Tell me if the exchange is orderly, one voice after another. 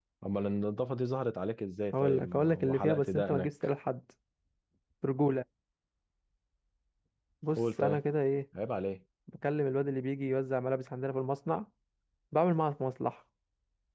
No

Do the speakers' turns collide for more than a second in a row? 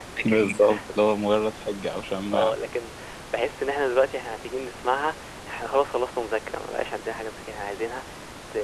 No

